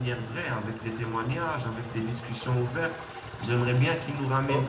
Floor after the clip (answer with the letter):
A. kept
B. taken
A